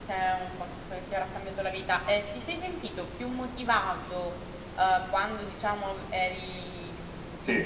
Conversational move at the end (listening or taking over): listening